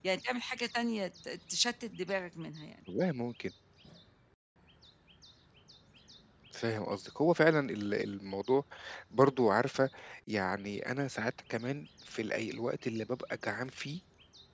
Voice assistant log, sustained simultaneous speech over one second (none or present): none